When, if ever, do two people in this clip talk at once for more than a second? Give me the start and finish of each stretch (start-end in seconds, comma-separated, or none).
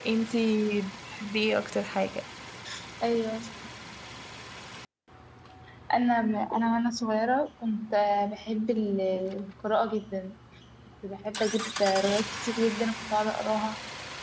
none